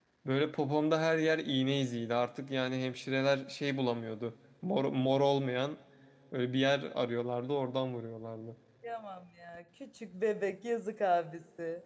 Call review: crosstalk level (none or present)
none